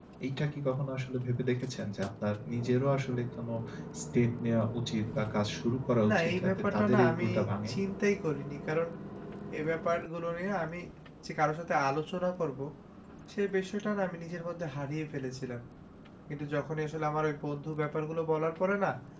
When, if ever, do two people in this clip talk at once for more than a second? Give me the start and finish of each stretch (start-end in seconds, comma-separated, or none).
6.1-7.3